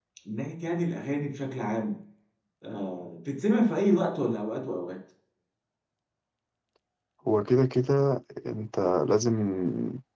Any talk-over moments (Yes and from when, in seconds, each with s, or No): No